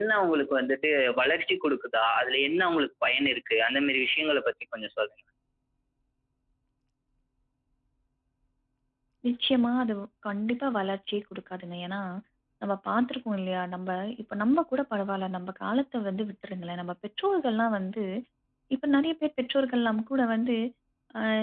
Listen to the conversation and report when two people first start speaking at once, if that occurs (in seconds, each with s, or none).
none